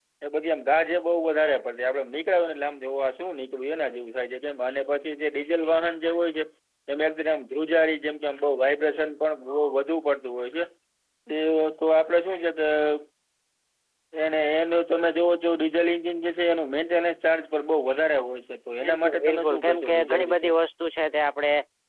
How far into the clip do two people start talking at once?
18.8 s

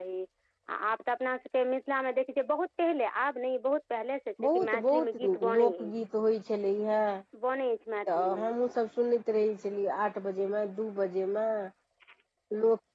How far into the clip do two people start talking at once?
4.5 s

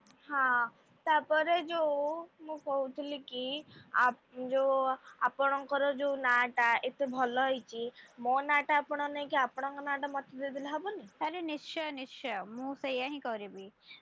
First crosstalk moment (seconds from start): none

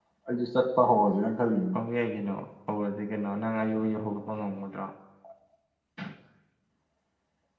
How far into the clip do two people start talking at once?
none

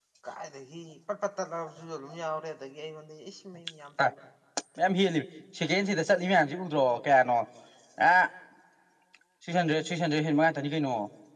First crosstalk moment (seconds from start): none

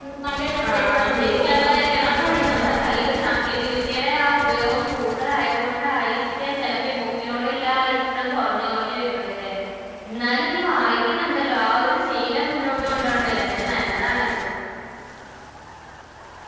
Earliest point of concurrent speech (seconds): 0.7 s

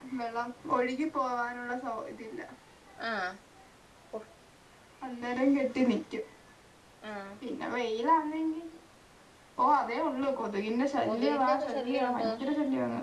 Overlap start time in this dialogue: 11.0 s

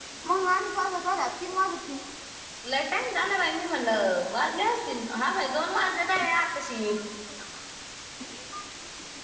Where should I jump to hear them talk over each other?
none

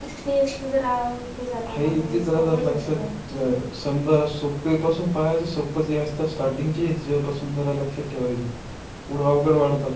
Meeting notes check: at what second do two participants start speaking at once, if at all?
1.7 s

